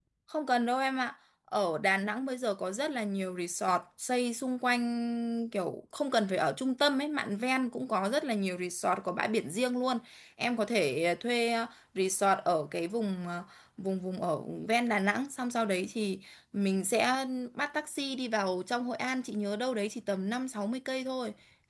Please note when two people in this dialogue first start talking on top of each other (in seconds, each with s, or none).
none